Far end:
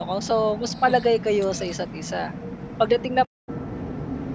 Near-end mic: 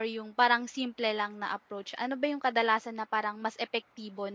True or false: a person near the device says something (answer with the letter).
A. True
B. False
A